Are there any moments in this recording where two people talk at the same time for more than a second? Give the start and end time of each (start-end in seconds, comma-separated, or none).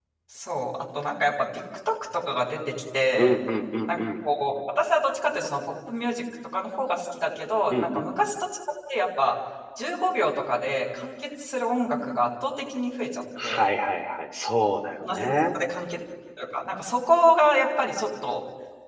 none